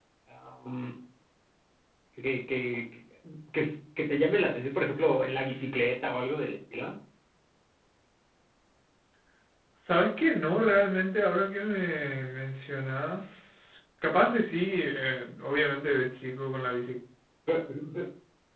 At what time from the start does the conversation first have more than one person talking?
none

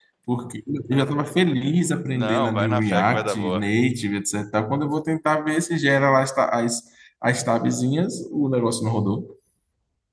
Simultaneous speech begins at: 2.1 s

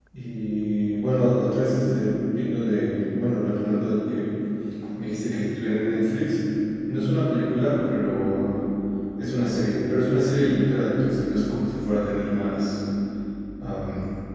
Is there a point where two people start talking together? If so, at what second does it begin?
none

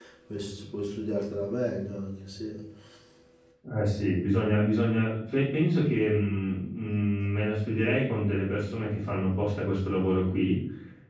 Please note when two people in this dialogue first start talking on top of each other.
none

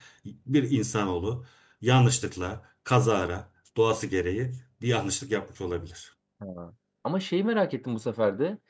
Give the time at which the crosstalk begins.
none

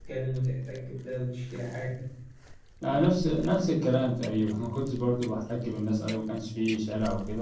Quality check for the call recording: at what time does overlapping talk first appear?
none

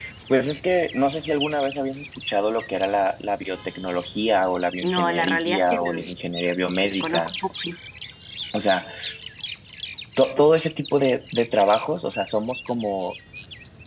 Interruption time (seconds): 4.8 s

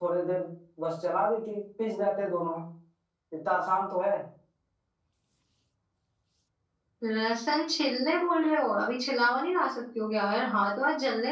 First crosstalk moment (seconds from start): none

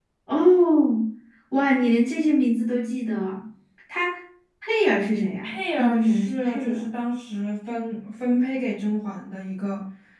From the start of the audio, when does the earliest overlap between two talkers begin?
5.4 s

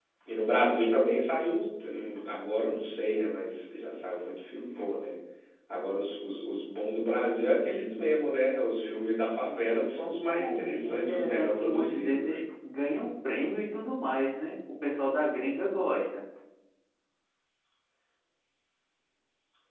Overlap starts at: 10.4 s

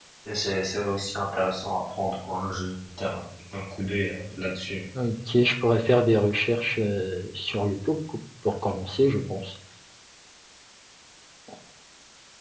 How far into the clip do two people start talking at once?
none

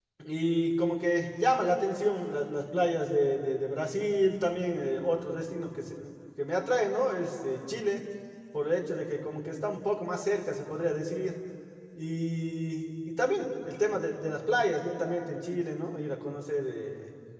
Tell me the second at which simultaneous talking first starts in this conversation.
none

